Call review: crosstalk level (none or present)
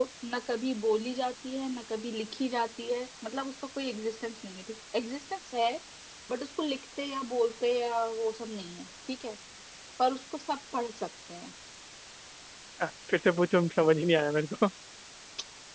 none